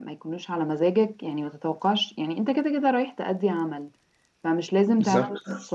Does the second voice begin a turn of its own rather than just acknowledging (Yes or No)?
No